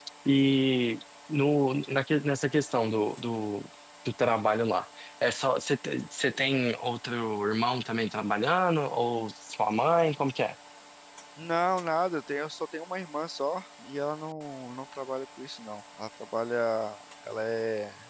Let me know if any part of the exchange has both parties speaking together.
No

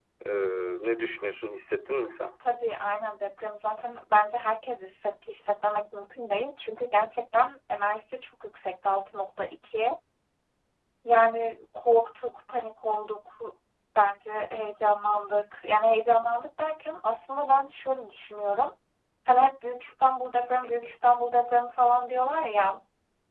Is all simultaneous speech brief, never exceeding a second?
Yes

